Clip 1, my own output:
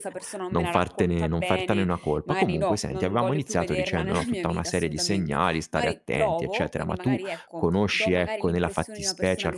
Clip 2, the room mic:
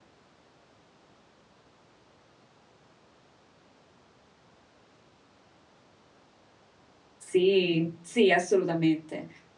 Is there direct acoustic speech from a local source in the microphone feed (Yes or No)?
Yes